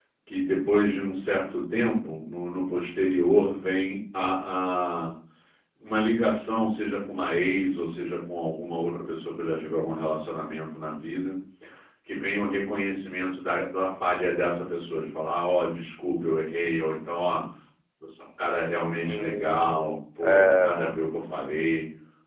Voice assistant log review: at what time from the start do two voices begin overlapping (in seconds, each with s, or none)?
18.7 s